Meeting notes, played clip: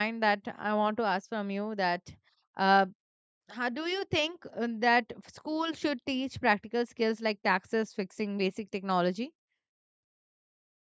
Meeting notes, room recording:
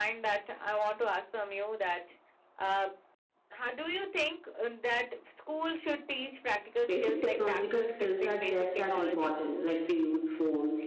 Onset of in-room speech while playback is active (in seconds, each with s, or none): 6.8 s